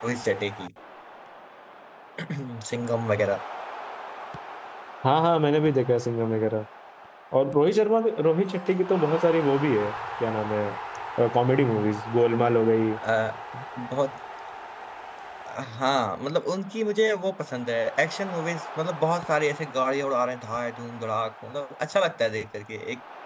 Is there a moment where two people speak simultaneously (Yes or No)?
No